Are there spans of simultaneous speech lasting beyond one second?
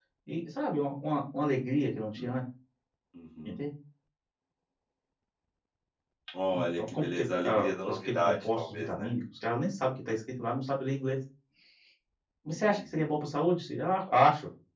Yes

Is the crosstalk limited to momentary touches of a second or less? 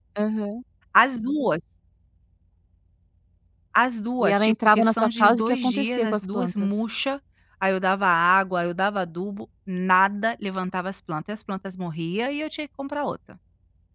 No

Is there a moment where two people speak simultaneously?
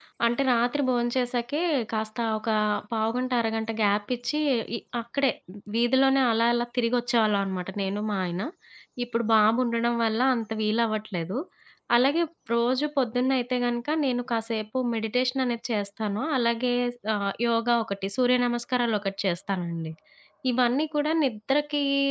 No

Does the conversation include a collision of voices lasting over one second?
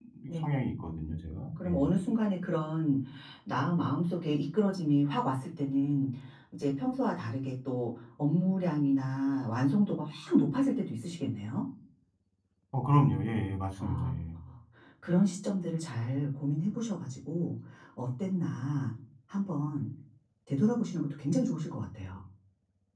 No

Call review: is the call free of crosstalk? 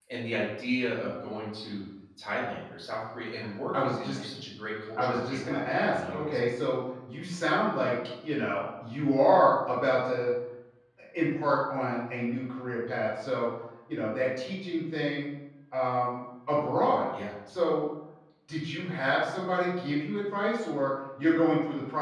No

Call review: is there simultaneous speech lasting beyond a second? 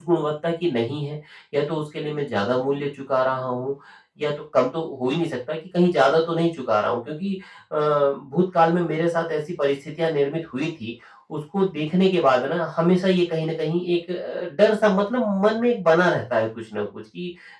No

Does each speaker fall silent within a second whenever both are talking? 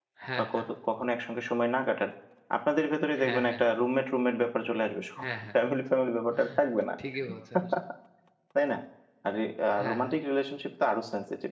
Yes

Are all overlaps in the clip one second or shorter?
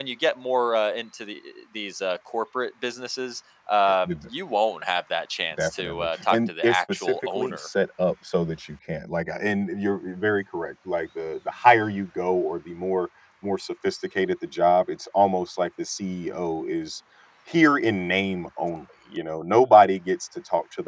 No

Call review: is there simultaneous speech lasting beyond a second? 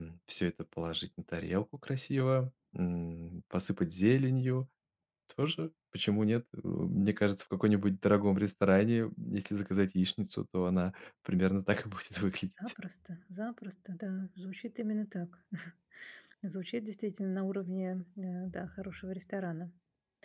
No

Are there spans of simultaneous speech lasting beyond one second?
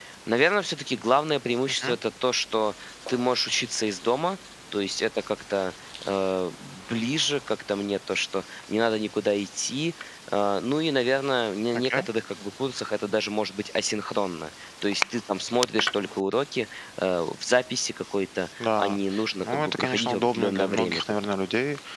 Yes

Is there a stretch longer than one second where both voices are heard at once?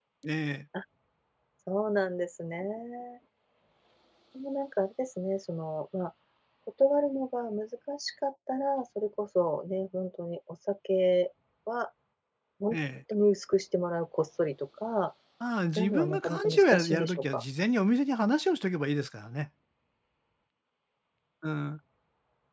Yes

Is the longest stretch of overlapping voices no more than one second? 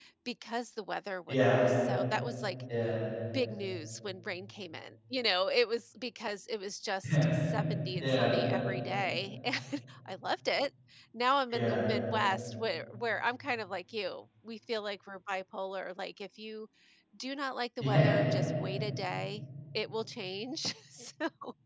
Yes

